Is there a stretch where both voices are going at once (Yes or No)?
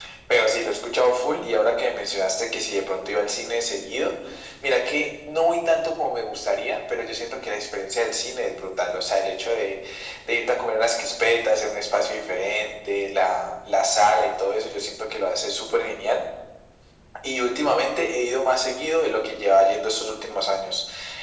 No